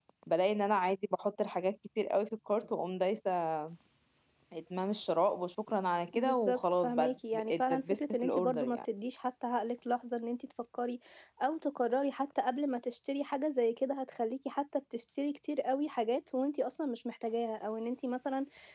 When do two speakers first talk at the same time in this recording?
6.1 s

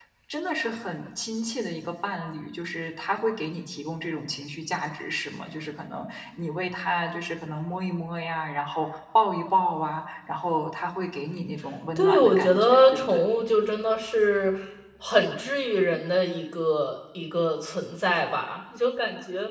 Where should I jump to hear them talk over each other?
12.0 s

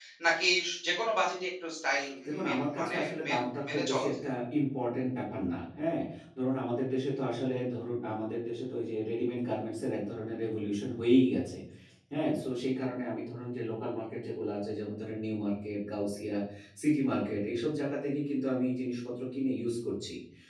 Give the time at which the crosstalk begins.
2.4 s

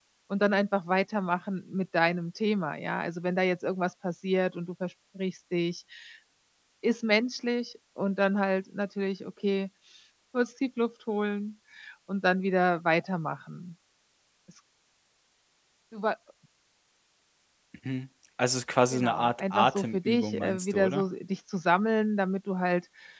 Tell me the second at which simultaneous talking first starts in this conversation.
18.9 s

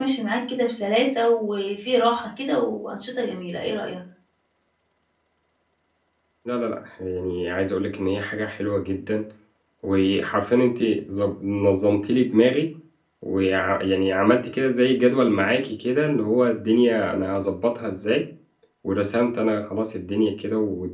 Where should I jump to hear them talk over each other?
none

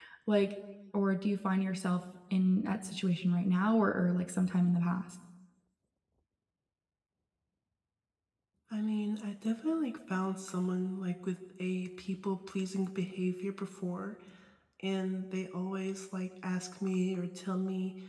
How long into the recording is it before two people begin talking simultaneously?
none

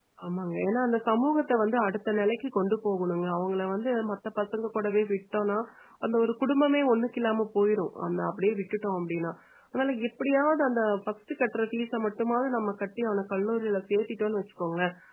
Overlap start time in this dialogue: none

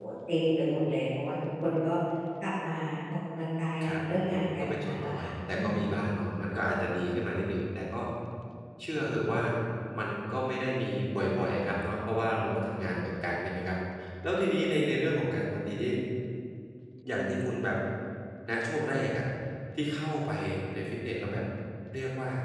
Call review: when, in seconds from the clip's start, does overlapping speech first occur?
3.8 s

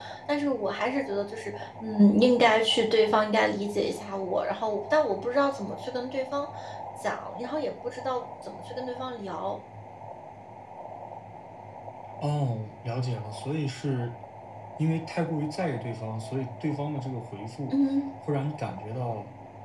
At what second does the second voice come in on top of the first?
none

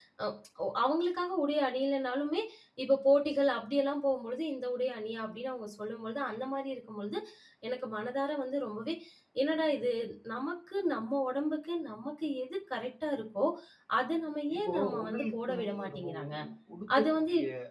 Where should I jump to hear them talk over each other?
14.5 s

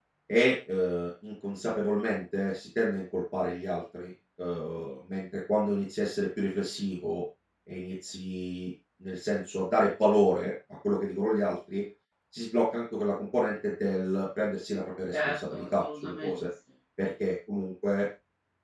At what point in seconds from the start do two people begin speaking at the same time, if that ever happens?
15.1 s

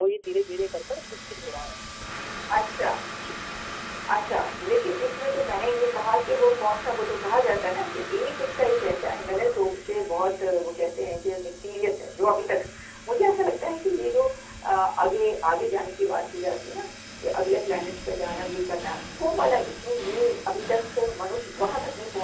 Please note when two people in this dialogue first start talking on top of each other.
none

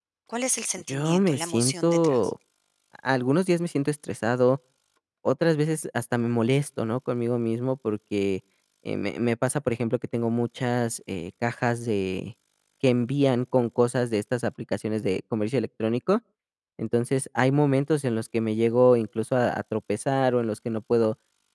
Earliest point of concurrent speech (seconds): 0.9 s

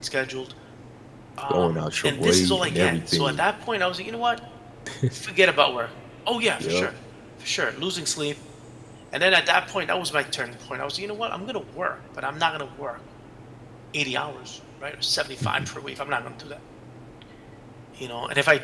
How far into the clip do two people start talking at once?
1.5 s

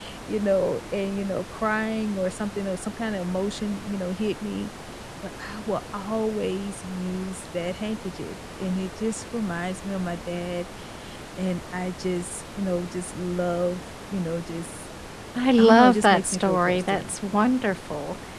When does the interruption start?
15.6 s

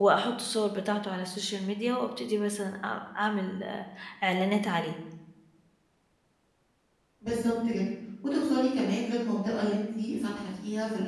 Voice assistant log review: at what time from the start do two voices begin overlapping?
none

